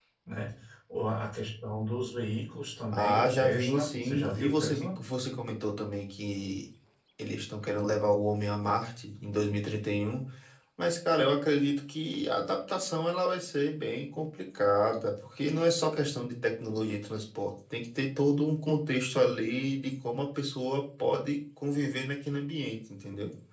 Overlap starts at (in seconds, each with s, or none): 2.9 s